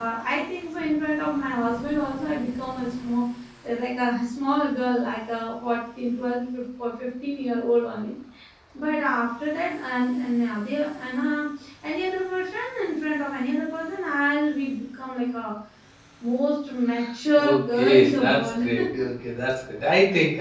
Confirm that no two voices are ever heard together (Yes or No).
No